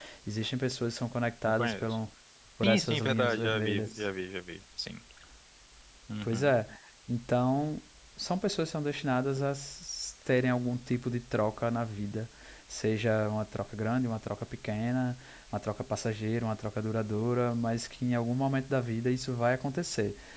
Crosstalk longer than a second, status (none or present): present